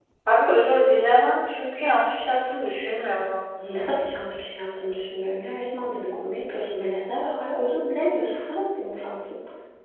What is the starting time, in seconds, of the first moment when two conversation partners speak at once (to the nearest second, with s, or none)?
none